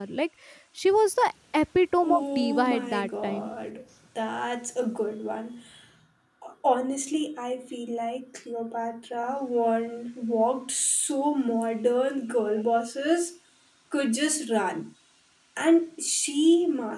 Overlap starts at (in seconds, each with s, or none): 2.0 s